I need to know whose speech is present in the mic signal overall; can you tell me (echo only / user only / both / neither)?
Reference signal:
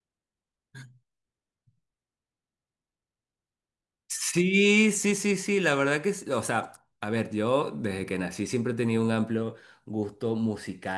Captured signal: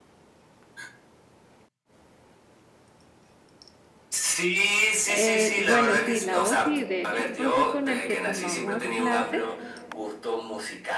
both